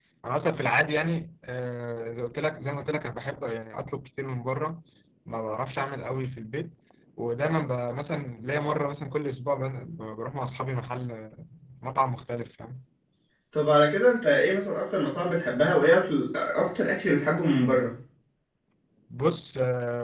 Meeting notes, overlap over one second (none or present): none